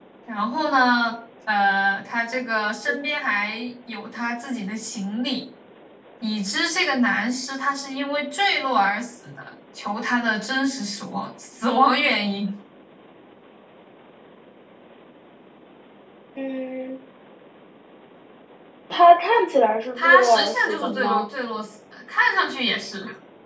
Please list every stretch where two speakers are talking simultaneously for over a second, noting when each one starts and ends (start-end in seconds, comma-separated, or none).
20.0-21.2